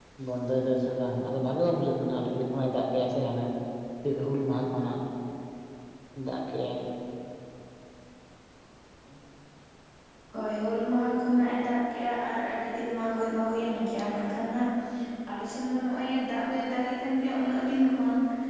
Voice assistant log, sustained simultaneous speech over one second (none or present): none